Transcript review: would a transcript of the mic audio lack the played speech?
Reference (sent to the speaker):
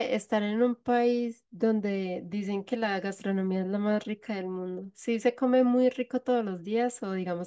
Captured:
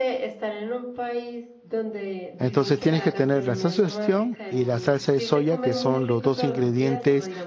No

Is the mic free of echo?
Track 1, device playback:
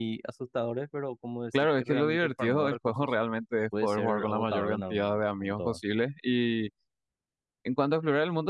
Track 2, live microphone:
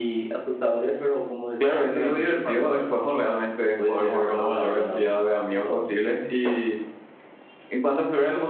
No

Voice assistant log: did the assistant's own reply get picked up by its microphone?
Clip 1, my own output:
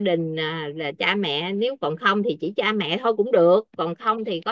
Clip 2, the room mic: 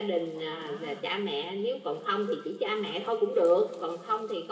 Yes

